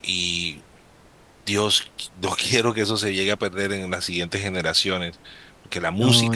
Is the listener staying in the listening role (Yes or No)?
Yes